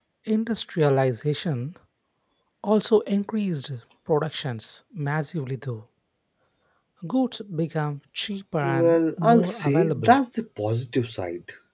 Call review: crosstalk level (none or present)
present